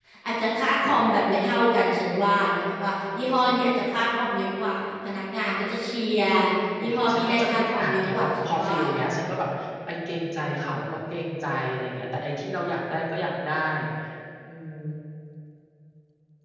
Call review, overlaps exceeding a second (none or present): present